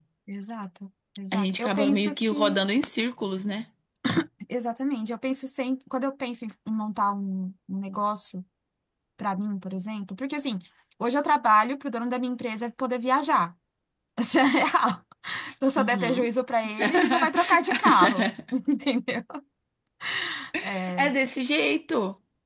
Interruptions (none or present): present